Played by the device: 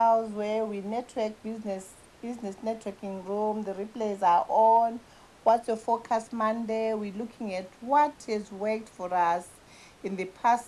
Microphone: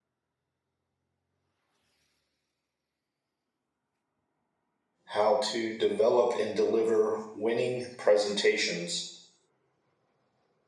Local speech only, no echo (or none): how to develop and deliver winning presentations